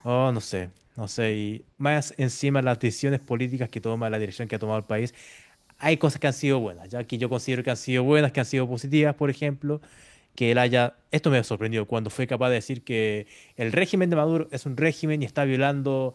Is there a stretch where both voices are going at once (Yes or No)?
No